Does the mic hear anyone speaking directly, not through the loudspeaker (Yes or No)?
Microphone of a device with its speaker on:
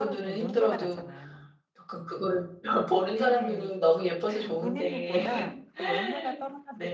Yes